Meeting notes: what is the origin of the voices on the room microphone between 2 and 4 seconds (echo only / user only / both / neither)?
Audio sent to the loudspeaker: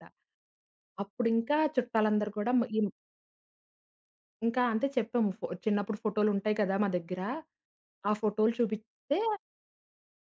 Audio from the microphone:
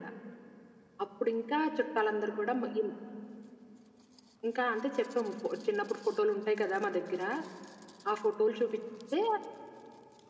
echo only